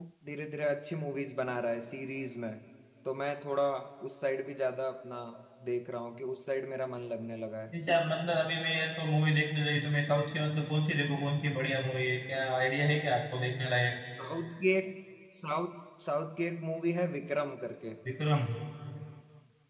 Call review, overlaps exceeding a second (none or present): none